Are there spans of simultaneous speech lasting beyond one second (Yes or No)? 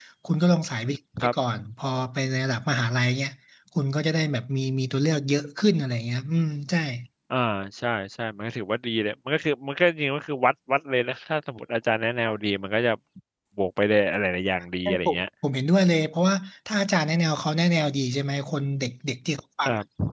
No